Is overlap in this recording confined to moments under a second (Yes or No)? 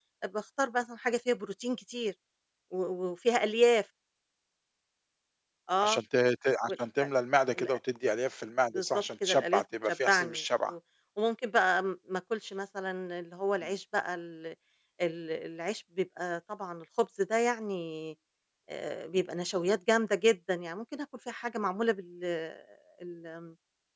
No